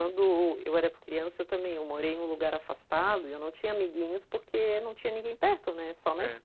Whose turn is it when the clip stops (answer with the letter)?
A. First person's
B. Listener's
A